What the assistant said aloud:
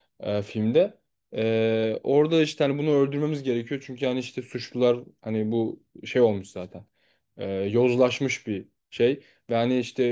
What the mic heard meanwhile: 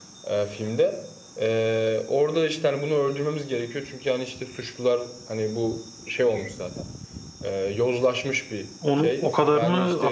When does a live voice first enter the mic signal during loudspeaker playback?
8.8 s

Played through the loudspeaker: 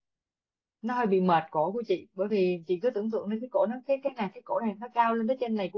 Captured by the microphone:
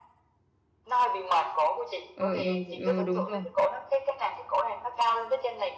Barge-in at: 2.1 s

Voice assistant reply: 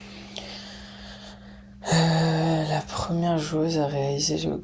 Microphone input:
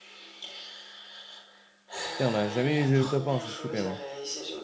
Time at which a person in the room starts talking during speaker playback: 2.1 s

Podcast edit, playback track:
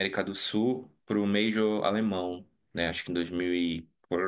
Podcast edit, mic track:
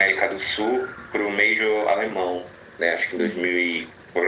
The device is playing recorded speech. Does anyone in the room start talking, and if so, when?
3.2 s

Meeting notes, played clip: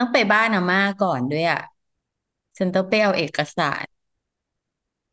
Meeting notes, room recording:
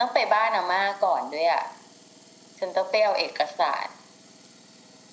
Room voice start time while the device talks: none

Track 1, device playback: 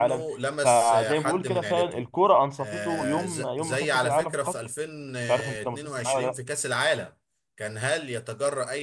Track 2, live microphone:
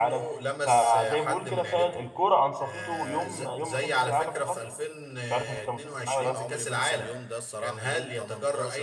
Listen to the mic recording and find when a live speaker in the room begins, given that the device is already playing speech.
6.2 s

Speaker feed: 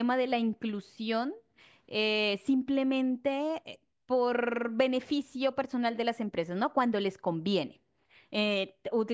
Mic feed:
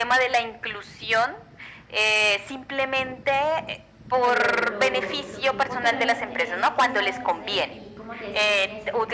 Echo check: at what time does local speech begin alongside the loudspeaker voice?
4.1 s

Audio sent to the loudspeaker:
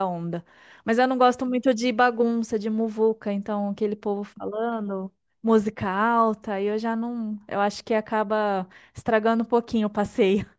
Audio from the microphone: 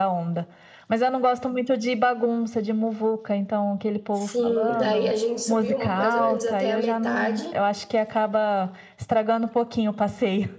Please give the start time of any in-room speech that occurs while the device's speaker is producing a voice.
4.1 s

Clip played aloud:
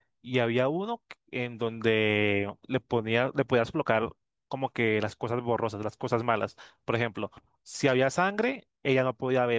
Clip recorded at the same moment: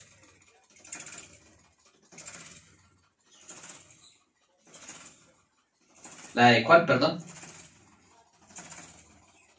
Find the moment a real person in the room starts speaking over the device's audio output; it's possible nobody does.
6.3 s

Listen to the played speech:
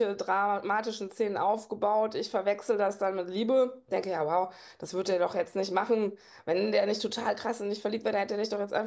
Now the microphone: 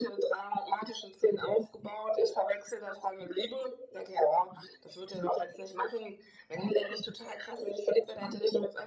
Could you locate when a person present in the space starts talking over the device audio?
none

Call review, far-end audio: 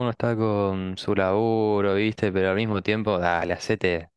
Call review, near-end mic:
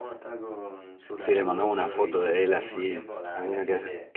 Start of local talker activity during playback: 1.1 s

